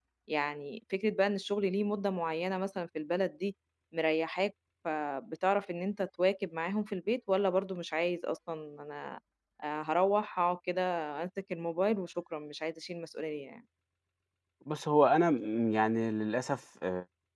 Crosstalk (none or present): none